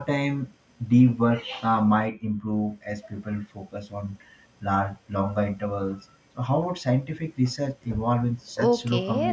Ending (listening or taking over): taking over